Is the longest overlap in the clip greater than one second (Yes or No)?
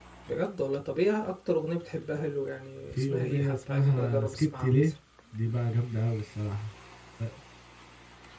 Yes